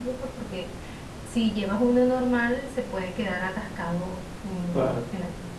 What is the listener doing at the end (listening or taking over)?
listening